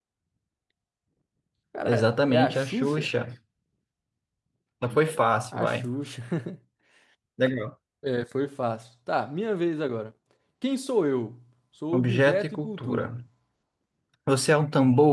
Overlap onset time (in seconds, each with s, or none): 1.9 s